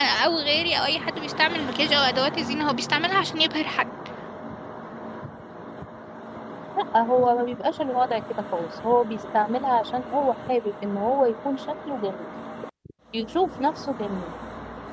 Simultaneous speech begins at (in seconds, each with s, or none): none